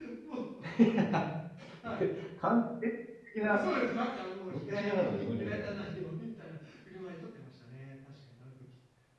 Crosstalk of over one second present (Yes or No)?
Yes